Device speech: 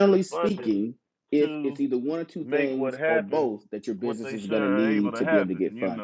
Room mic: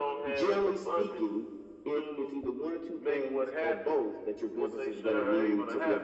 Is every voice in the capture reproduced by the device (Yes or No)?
Yes